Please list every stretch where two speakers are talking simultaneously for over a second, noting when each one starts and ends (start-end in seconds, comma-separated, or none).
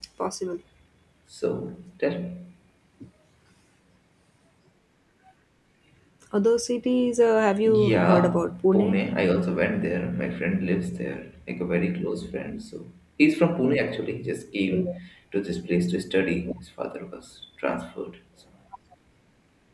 7.7-9.0